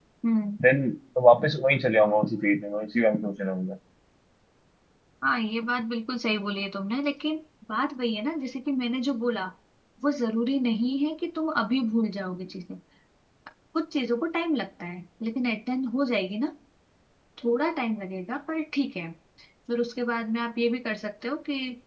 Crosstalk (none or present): none